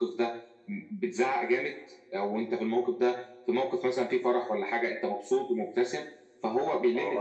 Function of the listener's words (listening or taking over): taking over